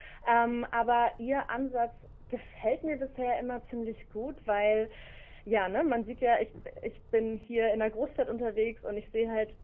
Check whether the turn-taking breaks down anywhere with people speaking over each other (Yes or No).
No